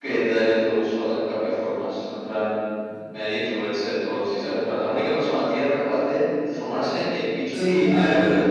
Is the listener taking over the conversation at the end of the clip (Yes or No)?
Yes